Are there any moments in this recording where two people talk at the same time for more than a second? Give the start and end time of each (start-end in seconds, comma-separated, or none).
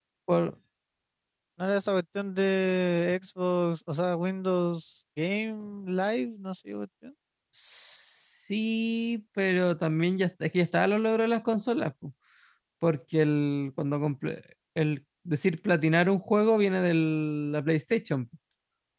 none